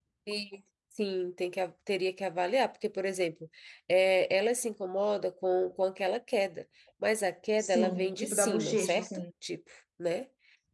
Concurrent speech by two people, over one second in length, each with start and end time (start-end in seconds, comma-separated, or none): 7.6-9.1